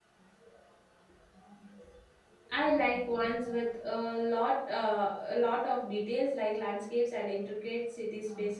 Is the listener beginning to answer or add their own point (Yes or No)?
No